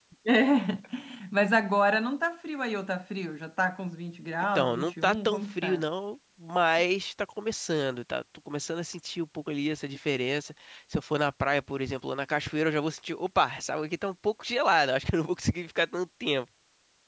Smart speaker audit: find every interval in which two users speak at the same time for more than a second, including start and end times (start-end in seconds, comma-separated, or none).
4.5-5.8